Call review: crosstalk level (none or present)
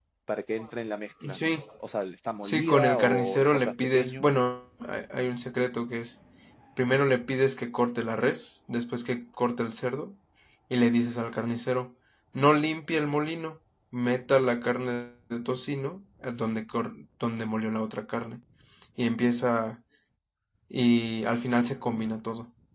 present